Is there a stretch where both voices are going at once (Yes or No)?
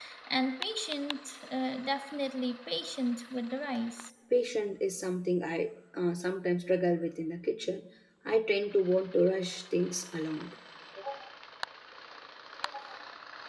No